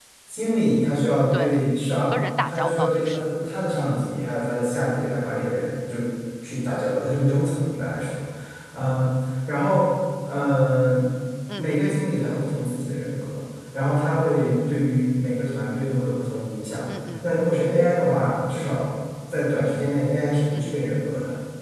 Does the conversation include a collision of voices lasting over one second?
Yes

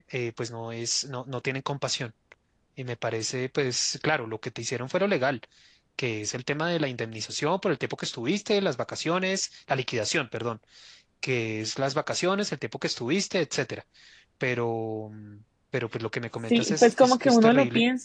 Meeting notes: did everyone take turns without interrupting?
No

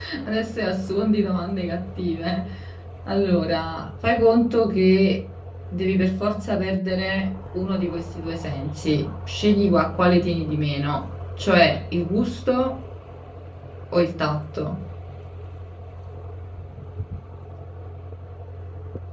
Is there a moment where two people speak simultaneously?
No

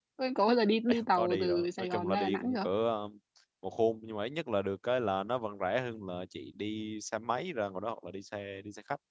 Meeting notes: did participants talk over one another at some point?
Yes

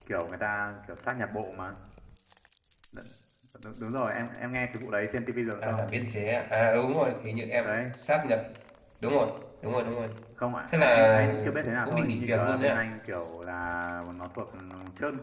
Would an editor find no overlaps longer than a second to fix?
No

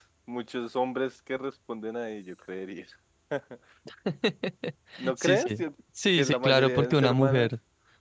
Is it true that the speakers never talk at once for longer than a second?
No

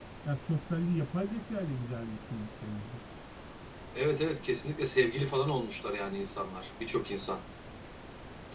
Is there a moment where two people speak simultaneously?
No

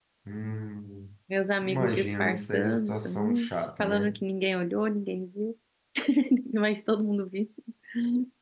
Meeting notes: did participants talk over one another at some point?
Yes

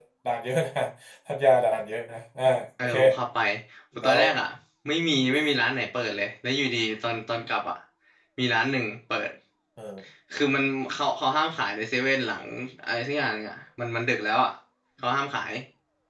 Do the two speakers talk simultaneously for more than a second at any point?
No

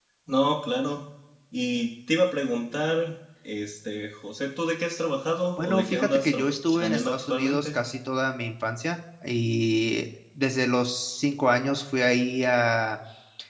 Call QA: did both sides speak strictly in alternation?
No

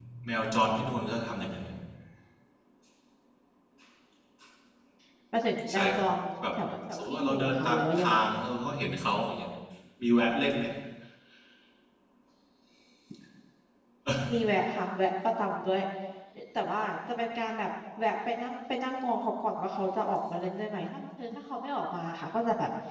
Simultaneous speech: Yes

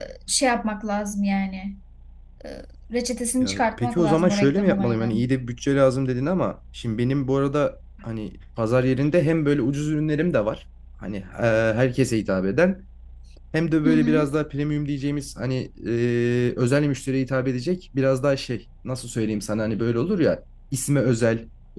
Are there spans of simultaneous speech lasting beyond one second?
Yes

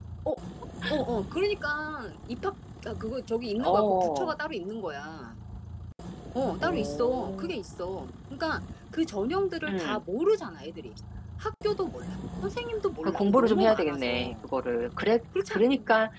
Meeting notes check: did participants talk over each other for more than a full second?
Yes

